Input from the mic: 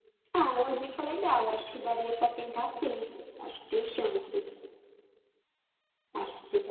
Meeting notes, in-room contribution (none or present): none